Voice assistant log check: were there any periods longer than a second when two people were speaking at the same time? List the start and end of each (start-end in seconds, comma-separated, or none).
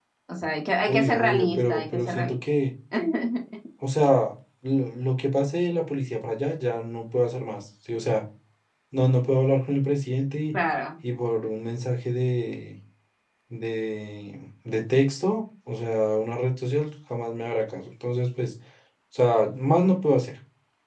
0.9-2.4